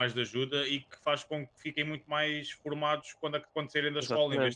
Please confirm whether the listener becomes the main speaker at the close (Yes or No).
No